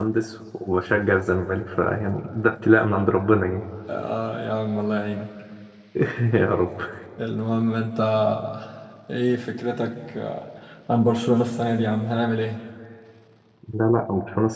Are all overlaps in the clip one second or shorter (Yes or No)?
Yes